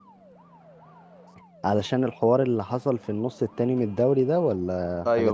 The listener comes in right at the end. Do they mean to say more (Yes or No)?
Yes